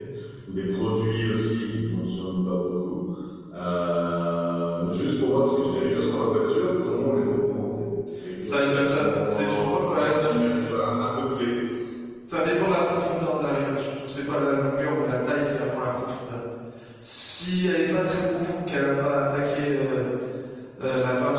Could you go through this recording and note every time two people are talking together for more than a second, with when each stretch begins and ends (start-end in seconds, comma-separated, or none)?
8.4-10.3